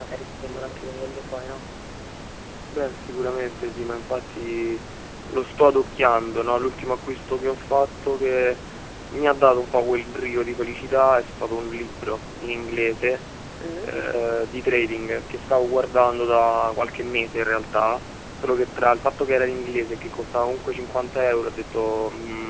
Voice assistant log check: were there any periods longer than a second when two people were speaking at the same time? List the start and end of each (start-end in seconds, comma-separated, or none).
none